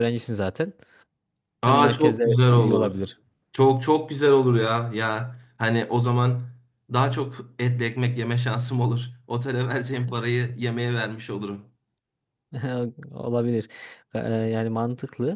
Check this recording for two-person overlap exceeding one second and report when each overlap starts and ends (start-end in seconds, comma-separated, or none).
1.7-3.0